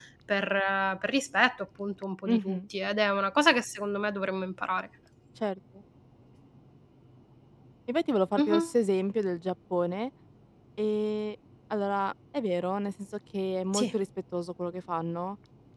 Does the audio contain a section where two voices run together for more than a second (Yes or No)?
No